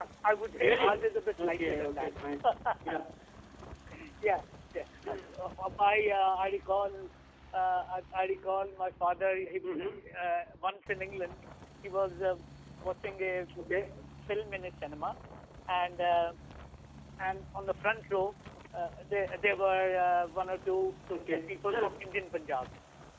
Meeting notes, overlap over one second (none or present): present